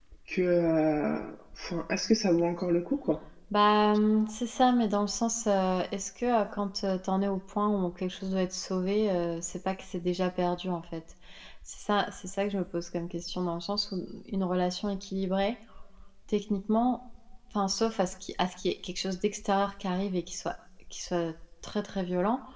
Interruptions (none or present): none